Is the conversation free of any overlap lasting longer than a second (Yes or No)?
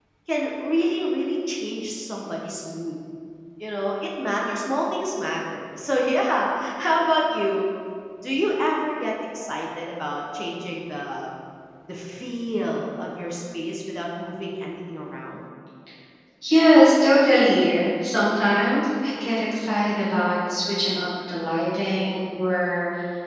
Yes